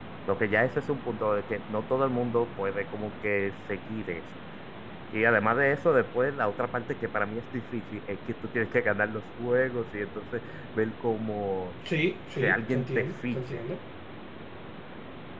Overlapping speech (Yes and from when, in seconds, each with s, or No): Yes, from 12.4 s